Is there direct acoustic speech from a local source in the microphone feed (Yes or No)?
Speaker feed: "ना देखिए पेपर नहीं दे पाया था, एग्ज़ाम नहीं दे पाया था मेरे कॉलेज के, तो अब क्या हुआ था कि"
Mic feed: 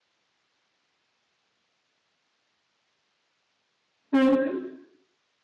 Yes